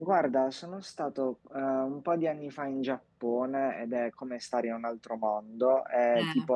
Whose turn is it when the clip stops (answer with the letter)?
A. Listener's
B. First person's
B